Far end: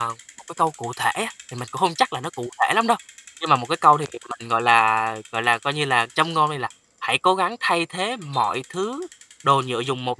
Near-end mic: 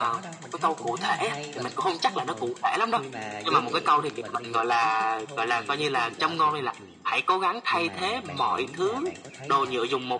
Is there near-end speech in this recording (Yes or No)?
Yes